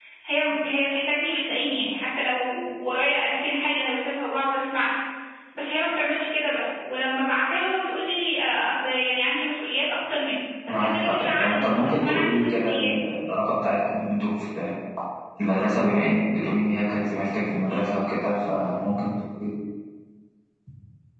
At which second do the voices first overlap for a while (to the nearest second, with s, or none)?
11 s